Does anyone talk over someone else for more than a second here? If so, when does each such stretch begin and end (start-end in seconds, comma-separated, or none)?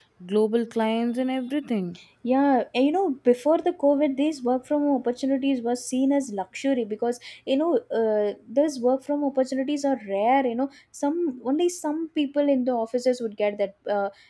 none